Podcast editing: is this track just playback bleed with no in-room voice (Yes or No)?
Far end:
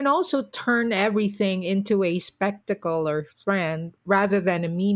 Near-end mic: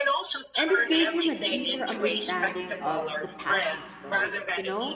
No